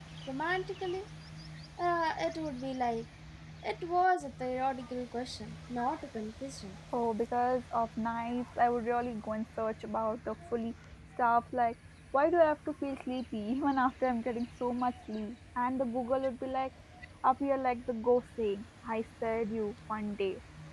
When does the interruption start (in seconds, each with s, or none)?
none